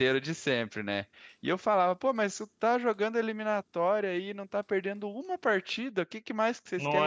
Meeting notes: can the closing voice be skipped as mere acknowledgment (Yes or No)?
Yes